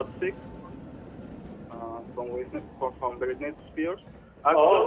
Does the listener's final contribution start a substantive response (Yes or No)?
Yes